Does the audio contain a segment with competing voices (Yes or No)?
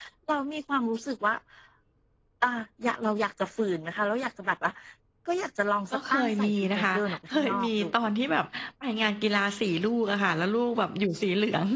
Yes